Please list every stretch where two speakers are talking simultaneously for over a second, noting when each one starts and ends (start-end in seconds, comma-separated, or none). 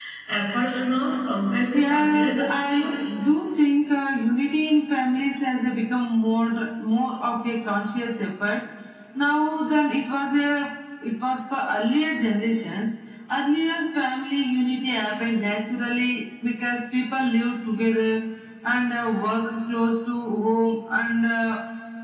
1.7-3.1